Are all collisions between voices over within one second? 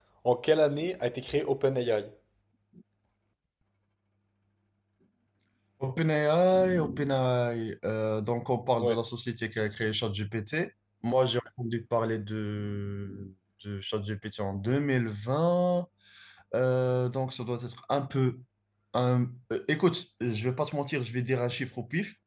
Yes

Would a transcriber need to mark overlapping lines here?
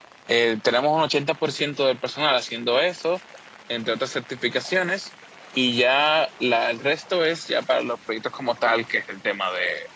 No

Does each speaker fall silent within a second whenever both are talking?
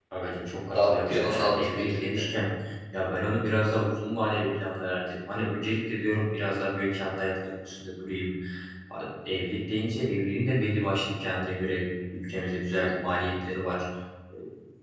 No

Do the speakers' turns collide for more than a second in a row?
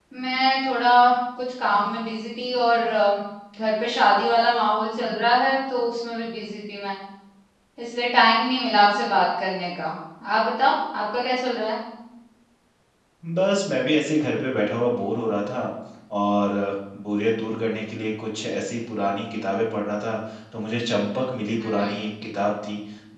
No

